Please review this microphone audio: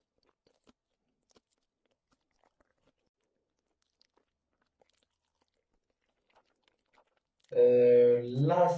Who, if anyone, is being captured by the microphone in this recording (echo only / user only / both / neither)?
user only